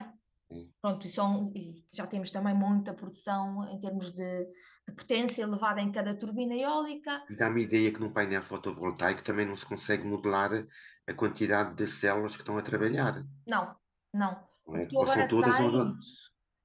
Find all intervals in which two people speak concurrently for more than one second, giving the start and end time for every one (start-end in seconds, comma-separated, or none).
14.7-16.0